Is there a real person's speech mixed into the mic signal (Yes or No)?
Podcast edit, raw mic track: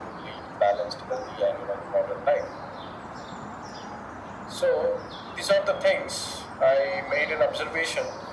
No